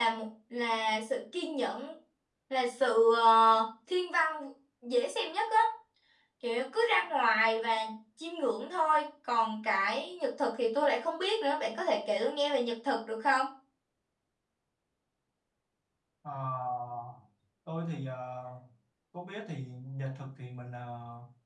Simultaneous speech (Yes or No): No